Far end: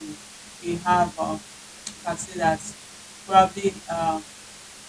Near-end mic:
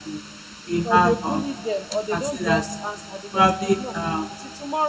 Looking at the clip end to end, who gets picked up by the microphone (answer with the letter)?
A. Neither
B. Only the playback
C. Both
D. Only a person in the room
C